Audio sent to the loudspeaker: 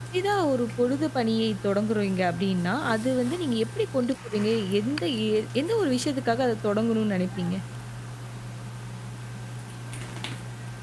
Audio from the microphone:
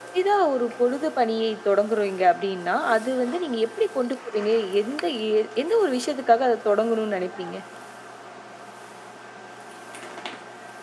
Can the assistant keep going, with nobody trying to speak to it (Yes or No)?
Yes